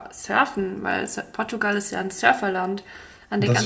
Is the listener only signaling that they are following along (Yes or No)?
Yes